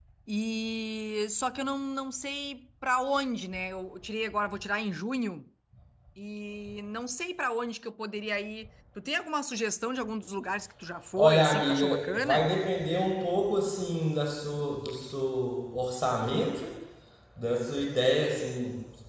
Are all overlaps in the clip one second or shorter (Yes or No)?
No